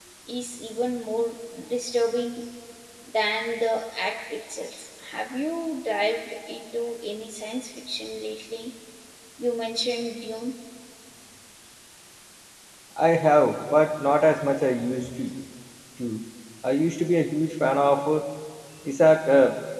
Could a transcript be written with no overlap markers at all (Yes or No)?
Yes